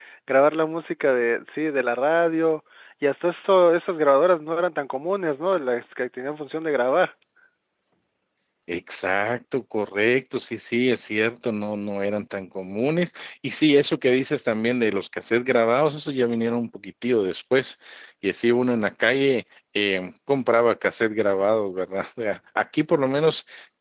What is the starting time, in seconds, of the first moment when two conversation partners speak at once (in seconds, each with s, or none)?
none